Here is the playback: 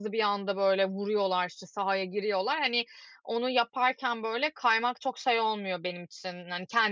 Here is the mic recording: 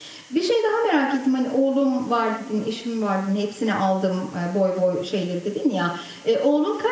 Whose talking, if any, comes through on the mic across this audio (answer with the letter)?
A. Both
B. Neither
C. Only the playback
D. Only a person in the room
D